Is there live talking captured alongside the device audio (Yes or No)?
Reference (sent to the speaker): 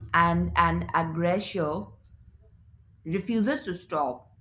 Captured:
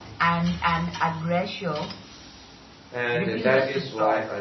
Yes